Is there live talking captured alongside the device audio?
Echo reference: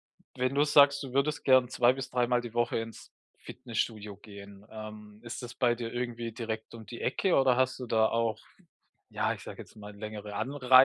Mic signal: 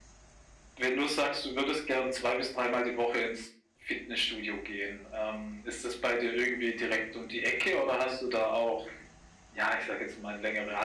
No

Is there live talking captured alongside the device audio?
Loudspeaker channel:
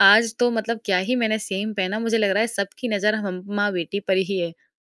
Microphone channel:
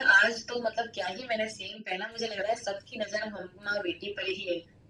No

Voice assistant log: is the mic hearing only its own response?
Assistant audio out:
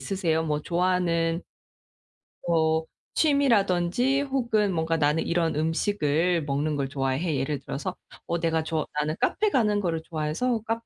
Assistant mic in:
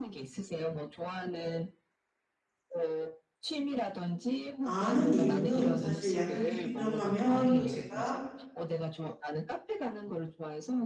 No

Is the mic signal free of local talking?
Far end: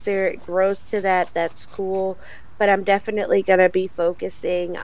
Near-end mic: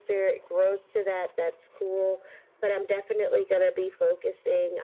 Yes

